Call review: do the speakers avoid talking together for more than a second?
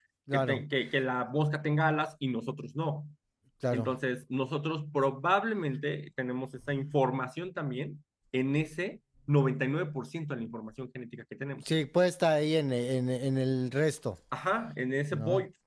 Yes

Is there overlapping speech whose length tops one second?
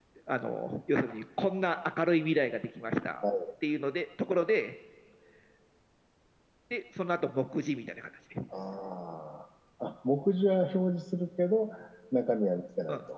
No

